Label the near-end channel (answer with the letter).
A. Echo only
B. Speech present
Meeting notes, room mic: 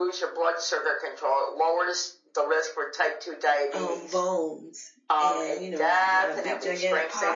B